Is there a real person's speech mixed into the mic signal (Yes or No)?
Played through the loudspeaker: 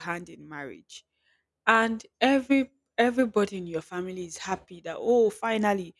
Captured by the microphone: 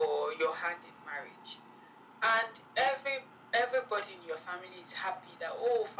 No